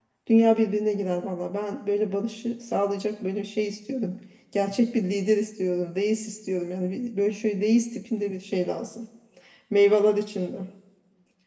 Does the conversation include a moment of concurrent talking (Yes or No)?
No